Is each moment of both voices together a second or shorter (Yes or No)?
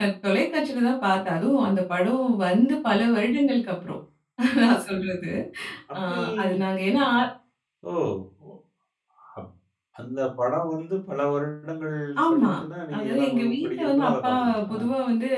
No